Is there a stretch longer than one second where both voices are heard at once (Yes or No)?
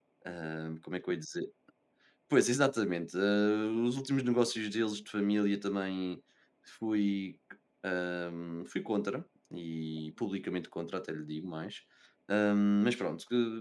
No